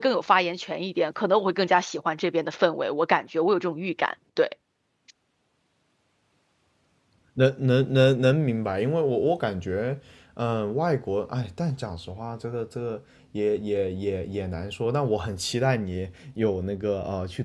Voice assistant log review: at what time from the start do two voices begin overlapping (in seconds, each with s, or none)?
none